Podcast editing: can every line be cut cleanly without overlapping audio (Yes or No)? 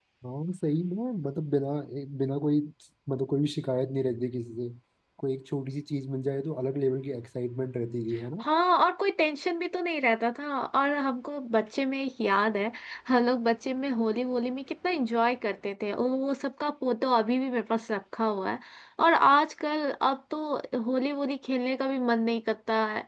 Yes